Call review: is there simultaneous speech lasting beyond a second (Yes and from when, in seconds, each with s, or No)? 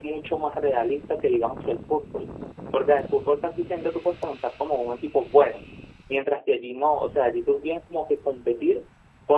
No